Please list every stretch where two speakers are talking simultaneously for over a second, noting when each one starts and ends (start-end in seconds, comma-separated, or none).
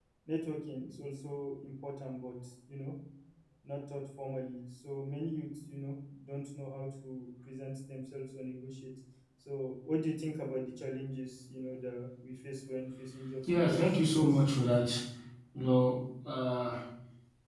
13.4-14.7